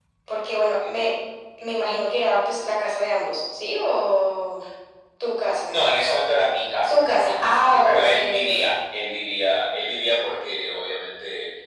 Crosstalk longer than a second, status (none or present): present